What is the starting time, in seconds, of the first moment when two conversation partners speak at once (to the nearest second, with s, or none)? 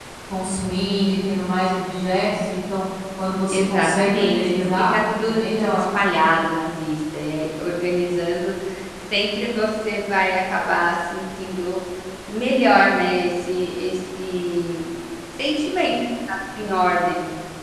3 s